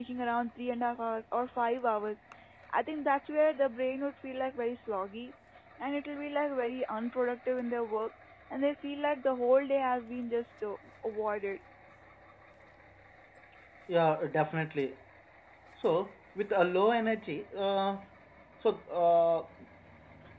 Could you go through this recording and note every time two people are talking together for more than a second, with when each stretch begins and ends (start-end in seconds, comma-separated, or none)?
none